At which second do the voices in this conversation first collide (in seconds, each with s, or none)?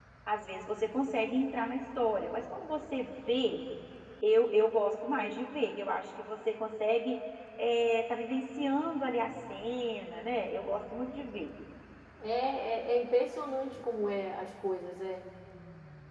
none